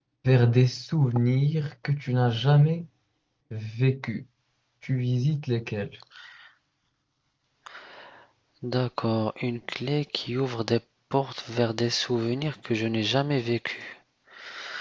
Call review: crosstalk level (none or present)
none